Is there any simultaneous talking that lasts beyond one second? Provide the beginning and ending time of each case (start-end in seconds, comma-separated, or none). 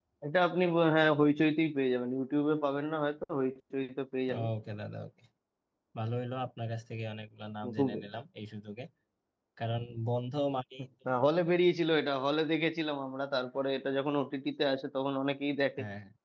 none